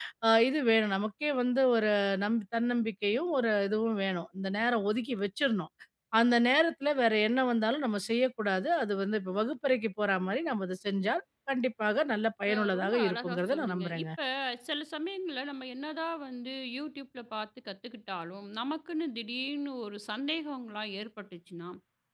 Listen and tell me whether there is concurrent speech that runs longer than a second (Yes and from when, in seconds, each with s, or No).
Yes, from 12.5 s